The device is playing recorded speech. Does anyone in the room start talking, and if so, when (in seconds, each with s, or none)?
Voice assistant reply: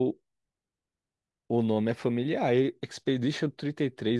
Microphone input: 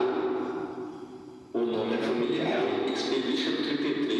1.7 s